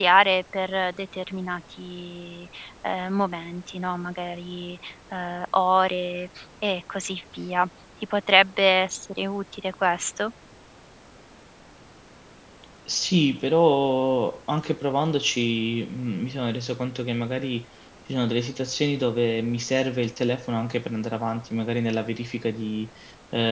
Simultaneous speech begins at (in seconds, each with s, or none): none